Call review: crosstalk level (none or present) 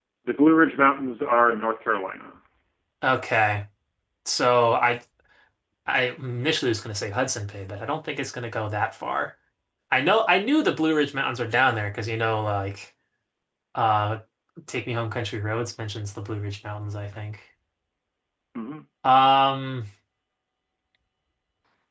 none